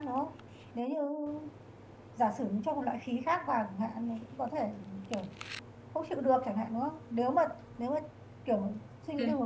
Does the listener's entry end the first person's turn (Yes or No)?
No